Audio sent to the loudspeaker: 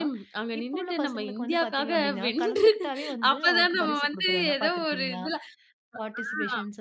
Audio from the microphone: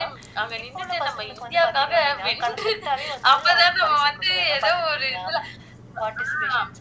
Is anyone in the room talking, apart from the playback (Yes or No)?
No